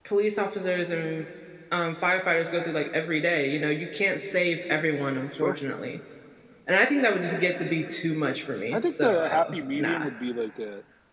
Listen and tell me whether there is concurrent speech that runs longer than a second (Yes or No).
Yes